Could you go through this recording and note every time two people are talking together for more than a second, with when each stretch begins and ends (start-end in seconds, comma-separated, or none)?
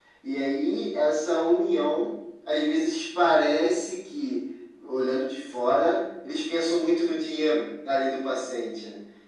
none